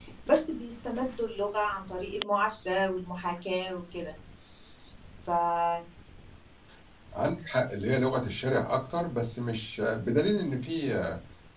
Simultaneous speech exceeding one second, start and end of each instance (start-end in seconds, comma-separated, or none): none